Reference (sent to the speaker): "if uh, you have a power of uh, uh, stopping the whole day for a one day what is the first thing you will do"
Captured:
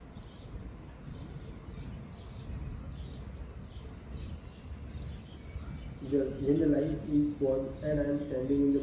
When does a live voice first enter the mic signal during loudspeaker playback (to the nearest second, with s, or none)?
6 s